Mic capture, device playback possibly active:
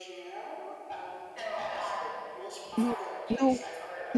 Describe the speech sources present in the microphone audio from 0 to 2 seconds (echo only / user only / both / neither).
echo only